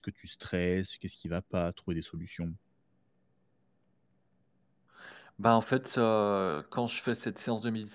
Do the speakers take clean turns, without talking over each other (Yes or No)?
Yes